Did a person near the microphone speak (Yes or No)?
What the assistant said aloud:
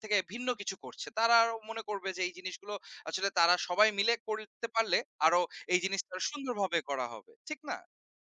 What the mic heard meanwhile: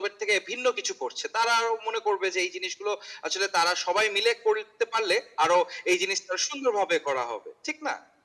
No